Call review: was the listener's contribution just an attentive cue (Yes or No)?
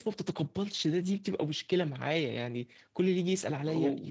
Yes